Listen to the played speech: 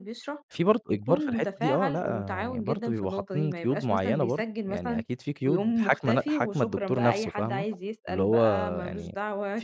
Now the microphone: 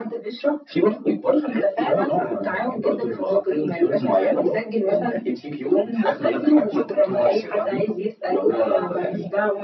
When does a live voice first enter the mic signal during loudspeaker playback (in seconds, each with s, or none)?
none